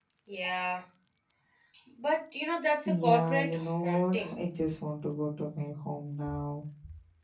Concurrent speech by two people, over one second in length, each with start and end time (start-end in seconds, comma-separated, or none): 2.9-4.4